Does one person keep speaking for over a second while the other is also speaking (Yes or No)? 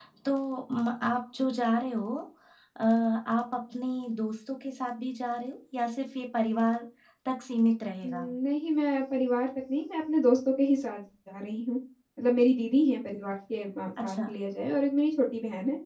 No